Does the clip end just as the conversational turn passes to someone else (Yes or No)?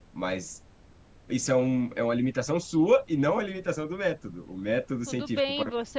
Yes